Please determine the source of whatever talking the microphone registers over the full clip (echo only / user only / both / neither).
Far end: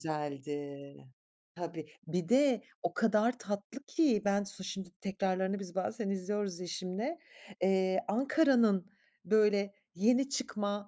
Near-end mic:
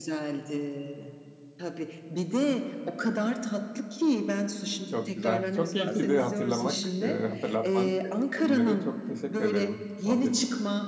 both